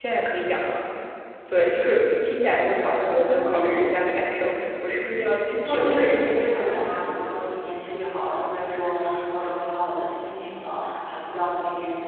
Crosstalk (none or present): present